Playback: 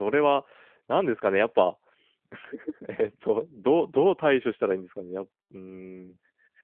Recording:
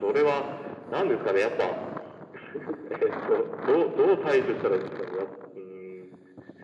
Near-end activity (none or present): none